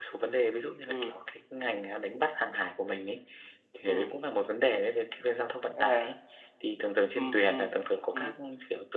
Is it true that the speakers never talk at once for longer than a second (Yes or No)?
Yes